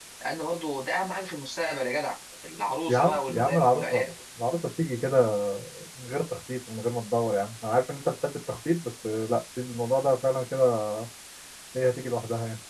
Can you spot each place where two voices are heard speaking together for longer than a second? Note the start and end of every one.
2.9-4.1

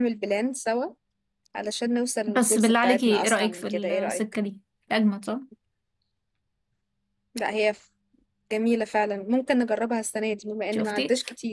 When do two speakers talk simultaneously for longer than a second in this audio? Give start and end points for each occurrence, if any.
2.3-4.2

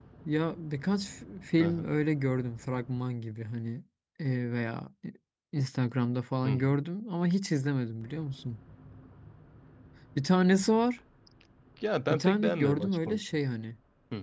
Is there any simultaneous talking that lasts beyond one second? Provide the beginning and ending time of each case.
12.1-13.4

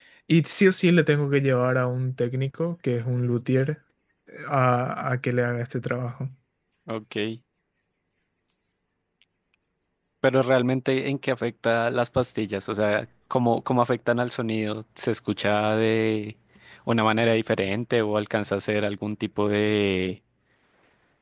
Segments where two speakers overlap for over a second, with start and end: none

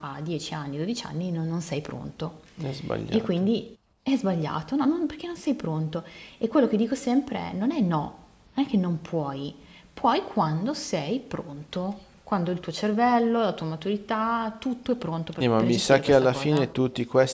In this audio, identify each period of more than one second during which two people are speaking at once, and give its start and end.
15.4-16.7

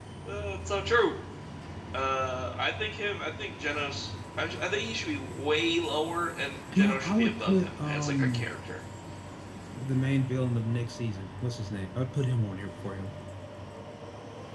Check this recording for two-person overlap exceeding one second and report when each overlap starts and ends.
6.8-8.4

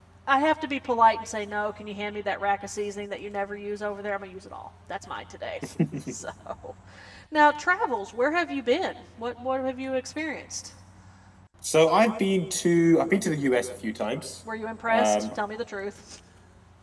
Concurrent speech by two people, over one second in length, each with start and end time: none

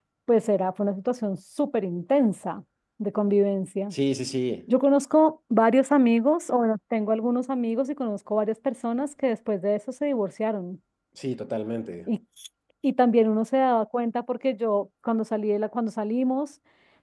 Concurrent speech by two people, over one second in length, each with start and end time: none

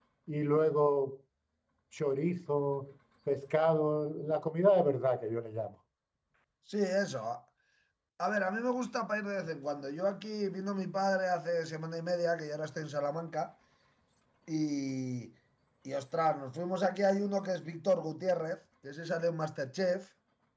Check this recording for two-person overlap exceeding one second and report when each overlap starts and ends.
none

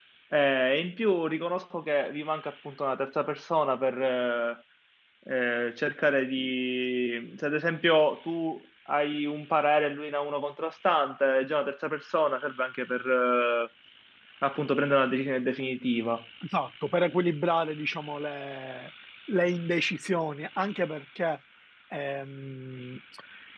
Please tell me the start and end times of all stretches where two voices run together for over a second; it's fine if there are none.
none

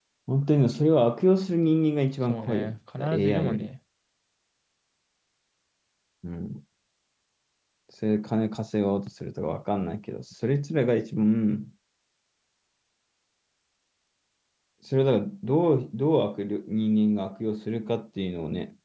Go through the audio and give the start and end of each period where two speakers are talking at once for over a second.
2.2-3.7

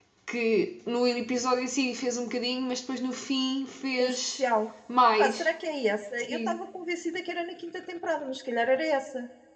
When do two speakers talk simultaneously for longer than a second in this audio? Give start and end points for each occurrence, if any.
none

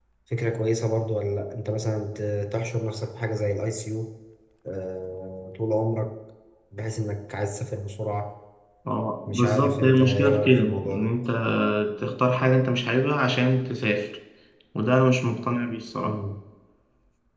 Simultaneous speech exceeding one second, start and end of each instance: 9.3-11.1

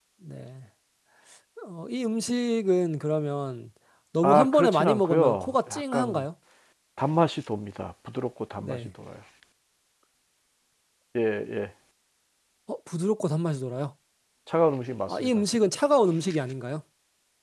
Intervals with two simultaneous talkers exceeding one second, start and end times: 4.2-6.2

